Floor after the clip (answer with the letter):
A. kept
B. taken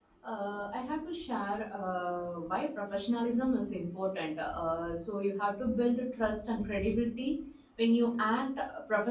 A